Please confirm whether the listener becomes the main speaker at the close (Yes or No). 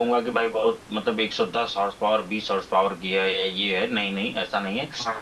No